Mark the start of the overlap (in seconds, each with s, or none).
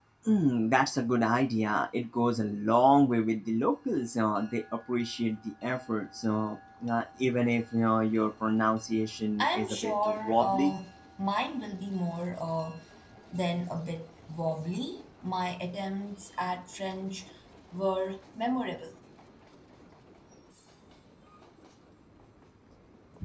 9.4 s